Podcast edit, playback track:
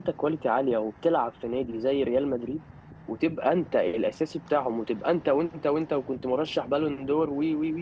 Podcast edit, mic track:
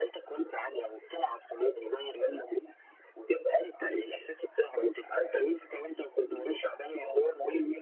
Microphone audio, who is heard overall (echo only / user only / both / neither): echo only